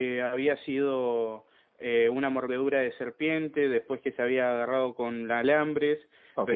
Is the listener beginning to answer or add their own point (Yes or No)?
Yes